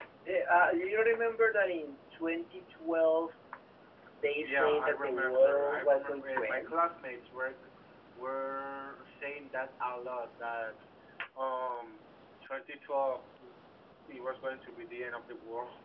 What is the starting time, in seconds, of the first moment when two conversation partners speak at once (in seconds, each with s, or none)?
4.4 s